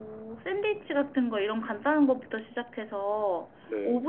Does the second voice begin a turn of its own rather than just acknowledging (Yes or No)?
No